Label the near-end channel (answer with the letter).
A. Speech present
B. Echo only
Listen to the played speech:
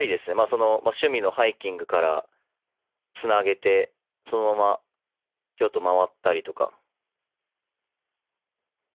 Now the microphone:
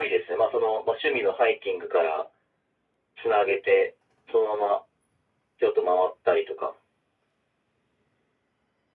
B